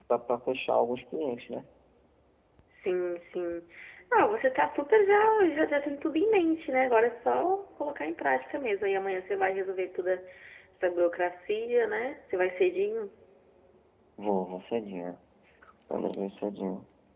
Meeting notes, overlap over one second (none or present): none